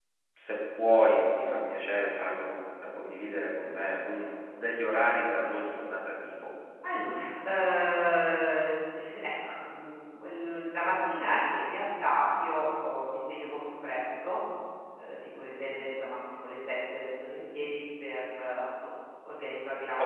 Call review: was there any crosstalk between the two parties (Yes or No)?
No